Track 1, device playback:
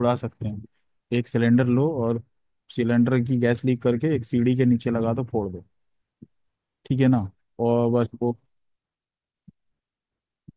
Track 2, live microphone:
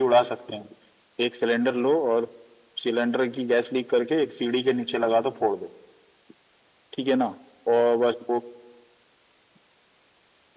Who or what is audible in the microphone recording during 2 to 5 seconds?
echo only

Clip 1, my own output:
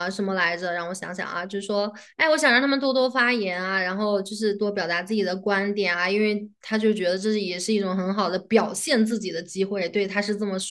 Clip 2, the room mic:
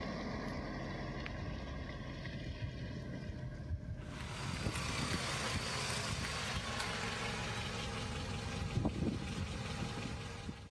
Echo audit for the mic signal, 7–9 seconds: neither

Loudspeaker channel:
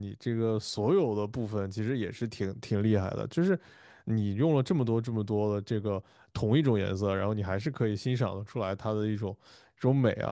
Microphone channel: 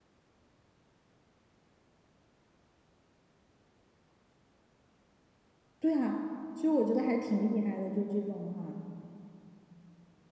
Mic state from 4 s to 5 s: neither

